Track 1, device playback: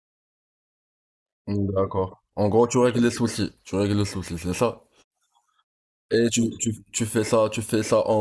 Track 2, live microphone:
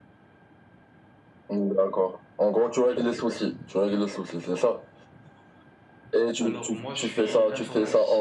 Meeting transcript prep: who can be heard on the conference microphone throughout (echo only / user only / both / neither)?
both